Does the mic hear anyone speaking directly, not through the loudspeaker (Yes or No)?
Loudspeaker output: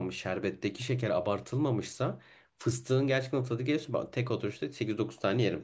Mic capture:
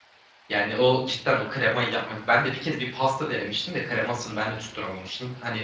Yes